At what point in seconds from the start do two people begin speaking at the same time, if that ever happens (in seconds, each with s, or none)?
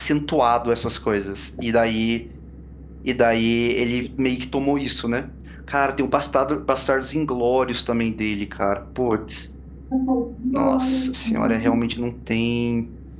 10.5 s